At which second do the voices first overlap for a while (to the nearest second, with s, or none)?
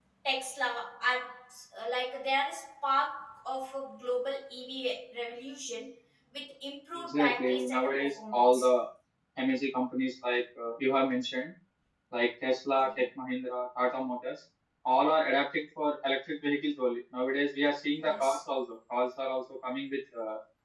7 s